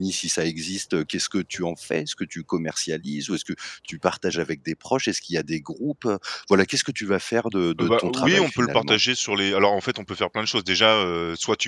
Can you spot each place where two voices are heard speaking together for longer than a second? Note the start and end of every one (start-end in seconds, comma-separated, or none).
7.8-9.0